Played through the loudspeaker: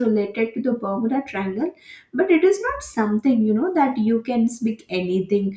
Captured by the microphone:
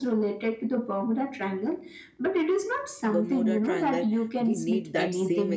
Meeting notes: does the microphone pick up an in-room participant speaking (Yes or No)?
Yes